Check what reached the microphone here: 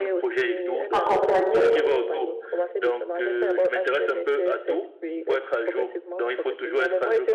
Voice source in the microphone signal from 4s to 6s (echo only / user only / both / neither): echo only